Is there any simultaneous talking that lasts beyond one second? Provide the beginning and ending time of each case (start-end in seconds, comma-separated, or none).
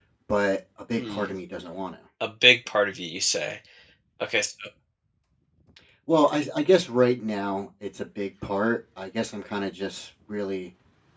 none